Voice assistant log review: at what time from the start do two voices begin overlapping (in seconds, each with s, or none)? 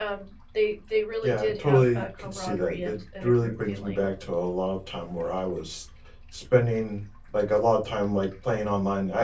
1.2 s